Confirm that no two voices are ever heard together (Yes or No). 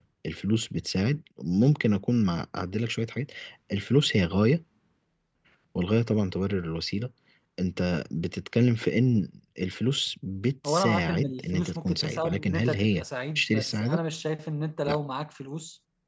No